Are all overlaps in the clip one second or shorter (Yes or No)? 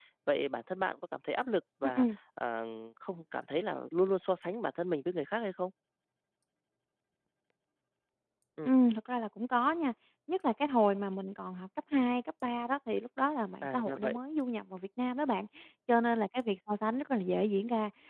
Yes